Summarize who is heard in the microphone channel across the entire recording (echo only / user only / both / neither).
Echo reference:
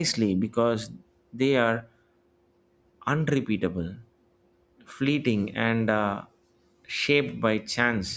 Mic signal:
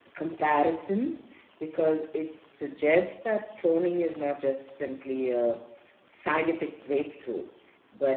user only